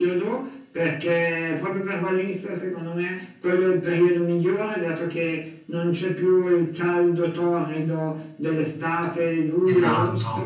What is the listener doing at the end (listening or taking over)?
taking over